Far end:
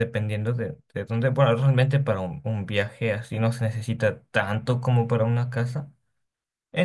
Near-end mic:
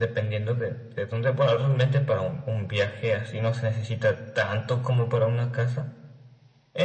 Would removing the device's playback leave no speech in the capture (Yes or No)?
Yes